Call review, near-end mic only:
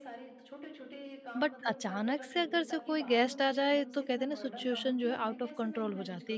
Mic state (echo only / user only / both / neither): both